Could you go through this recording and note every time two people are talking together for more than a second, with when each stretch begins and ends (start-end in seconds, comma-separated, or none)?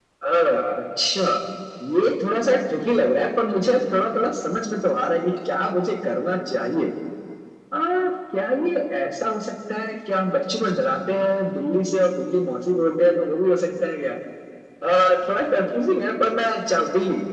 none